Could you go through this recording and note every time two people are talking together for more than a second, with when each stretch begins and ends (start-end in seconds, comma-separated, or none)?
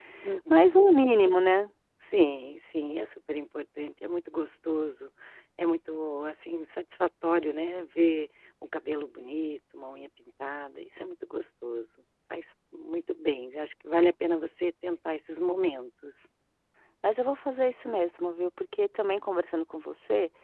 none